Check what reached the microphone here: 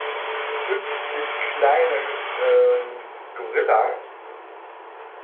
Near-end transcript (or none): 50 kleine ähm, Gorillas